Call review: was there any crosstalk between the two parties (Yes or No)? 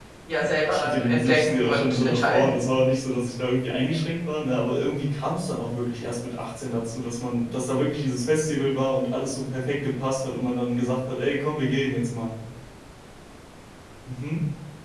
Yes